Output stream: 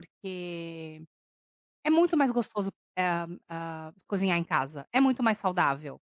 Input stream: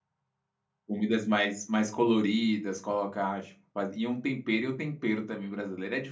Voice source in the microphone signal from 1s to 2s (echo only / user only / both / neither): user only